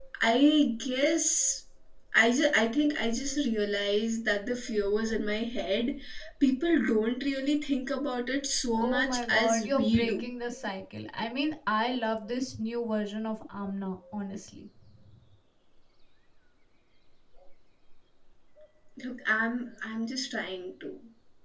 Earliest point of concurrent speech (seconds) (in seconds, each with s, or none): 8.8 s